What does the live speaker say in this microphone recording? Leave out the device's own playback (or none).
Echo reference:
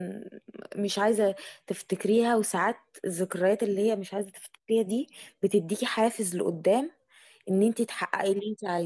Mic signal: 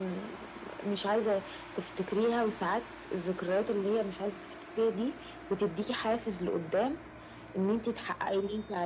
none